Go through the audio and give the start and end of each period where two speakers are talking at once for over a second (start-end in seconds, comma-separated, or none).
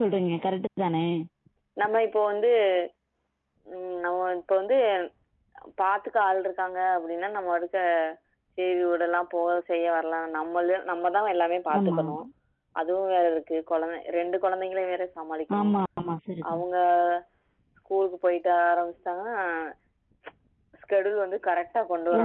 none